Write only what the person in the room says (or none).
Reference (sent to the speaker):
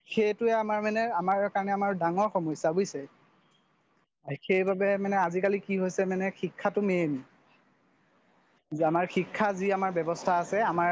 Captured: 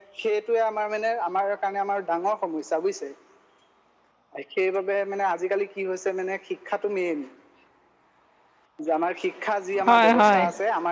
হয় হয়